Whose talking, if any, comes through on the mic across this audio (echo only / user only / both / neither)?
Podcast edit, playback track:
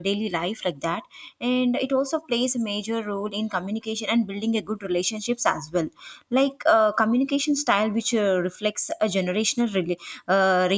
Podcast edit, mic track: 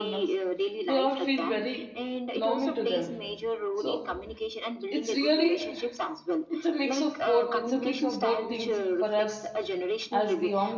both